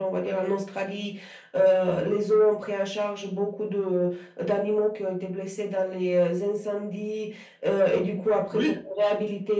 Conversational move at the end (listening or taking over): listening